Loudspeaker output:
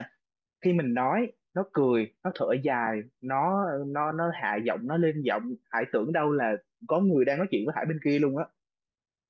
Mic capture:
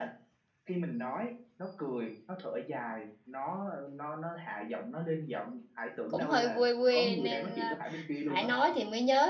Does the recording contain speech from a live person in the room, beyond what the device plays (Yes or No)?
Yes